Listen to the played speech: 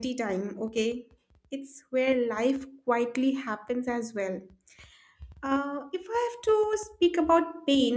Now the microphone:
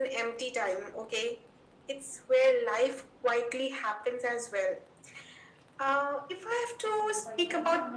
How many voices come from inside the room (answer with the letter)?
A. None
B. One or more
B